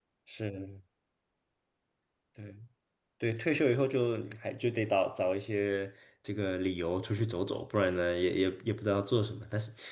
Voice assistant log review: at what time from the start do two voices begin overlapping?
none

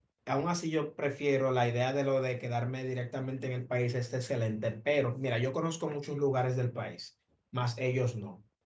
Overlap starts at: none

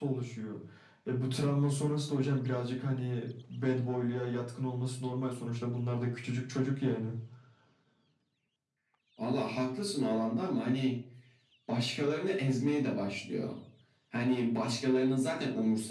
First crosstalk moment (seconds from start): none

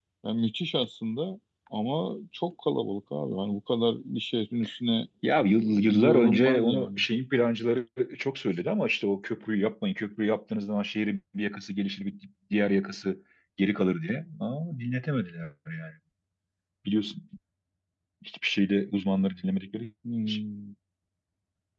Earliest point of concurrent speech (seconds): 5.5 s

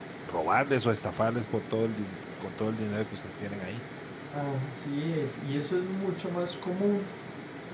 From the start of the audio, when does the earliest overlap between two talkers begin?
none

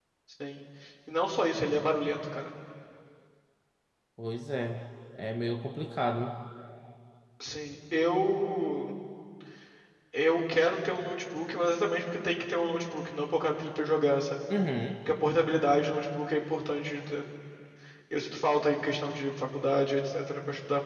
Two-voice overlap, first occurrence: none

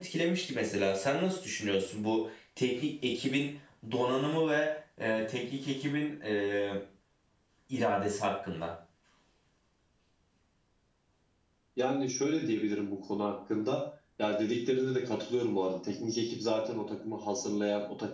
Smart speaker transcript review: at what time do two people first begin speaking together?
none

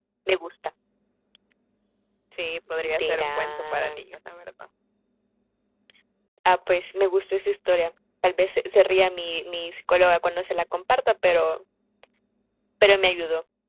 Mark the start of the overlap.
2.8 s

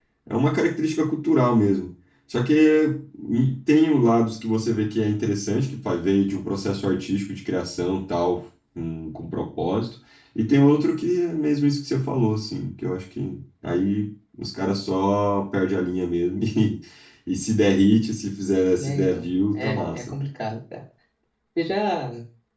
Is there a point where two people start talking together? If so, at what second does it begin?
18.7 s

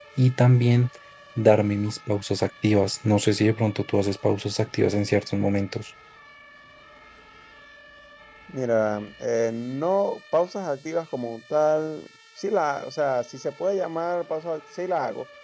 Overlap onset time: none

